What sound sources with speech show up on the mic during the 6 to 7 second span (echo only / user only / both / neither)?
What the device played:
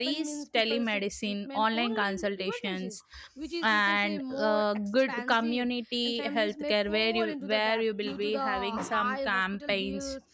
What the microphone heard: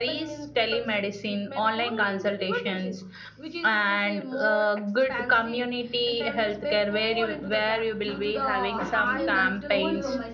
echo only